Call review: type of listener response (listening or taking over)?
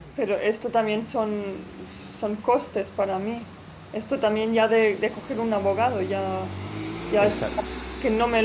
listening